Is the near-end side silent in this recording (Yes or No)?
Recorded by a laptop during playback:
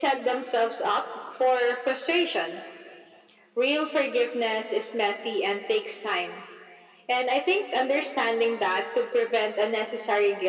Yes